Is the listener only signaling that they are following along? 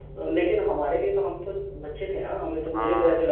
Yes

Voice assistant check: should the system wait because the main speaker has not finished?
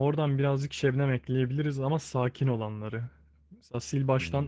Yes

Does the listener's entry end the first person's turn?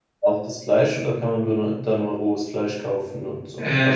Yes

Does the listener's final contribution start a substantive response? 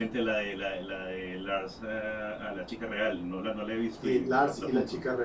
Yes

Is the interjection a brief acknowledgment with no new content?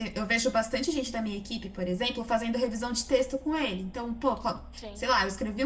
Yes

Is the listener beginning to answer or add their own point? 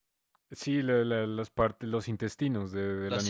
Yes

